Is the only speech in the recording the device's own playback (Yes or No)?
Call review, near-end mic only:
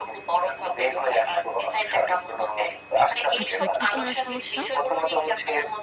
No